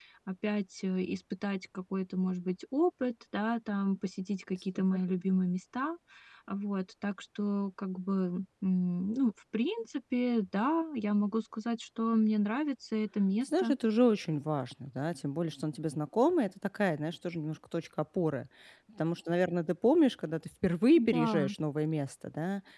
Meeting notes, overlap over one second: none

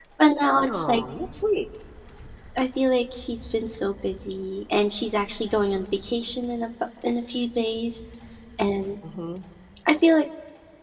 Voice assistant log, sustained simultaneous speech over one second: none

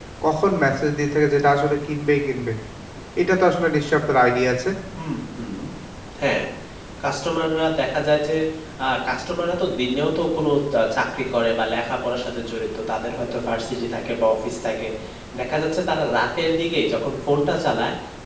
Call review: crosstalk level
none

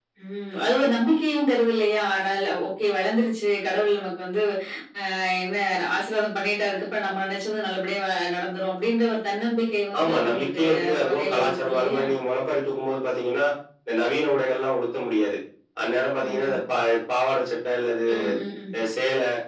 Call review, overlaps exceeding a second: present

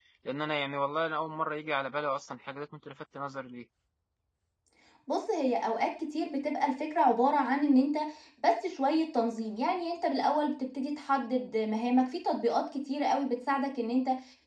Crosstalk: none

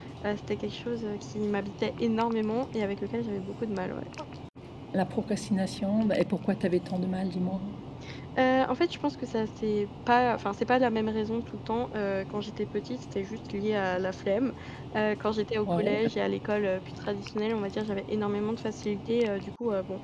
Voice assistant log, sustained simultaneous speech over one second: none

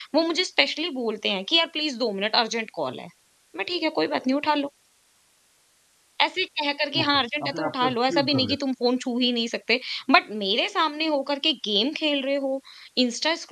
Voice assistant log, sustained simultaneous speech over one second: present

